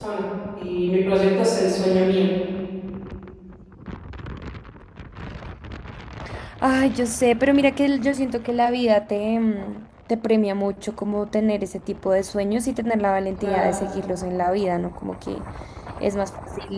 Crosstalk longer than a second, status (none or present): none